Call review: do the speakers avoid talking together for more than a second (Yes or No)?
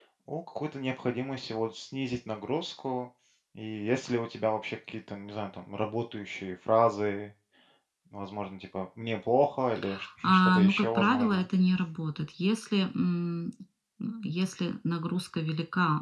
No